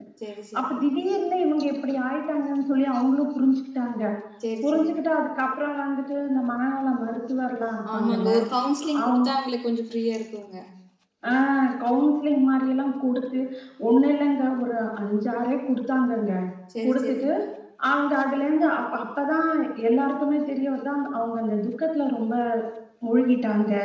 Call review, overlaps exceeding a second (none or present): none